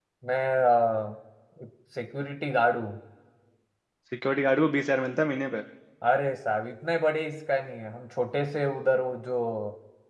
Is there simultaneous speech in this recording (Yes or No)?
No